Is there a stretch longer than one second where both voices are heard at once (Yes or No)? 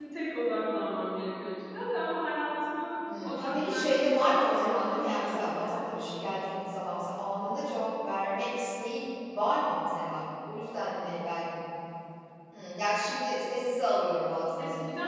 Yes